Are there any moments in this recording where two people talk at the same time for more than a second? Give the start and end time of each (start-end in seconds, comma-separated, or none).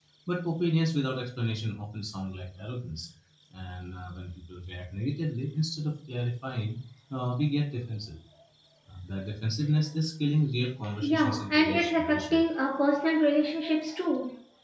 11.0-12.4